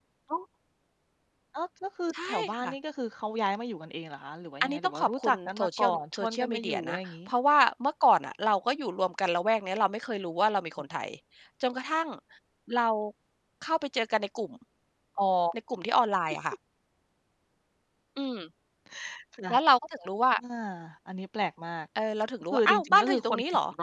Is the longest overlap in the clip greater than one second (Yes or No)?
Yes